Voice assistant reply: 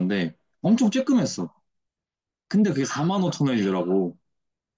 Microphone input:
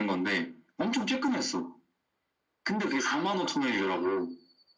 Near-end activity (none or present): none